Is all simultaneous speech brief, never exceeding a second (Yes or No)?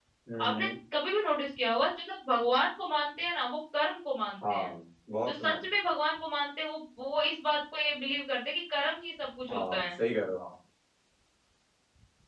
Yes